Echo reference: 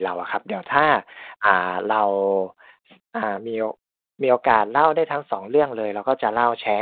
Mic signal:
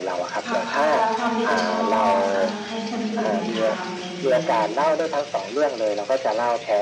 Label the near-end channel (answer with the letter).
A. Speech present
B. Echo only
A